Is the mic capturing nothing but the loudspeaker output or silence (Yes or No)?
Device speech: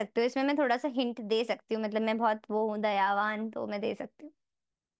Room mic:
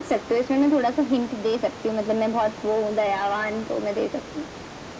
Yes